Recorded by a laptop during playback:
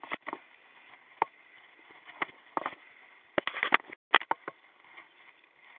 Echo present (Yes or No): No